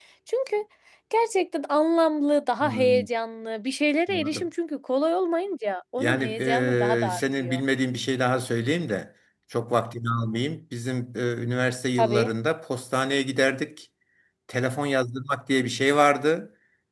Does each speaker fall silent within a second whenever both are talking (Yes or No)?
No